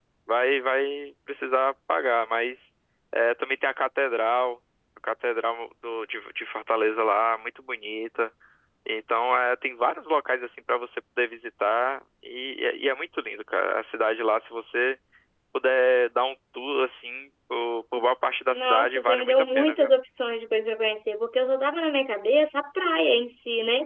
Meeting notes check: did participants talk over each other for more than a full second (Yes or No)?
Yes